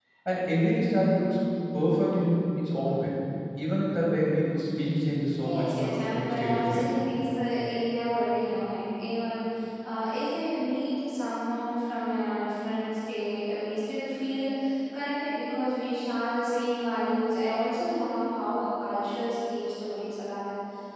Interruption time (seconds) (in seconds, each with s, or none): 5.5 s